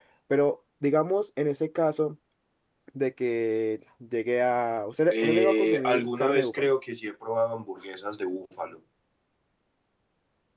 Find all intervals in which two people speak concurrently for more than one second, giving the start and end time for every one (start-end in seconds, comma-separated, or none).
5.1-6.7